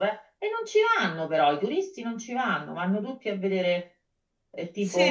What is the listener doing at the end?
taking over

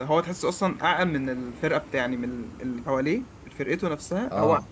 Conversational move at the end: listening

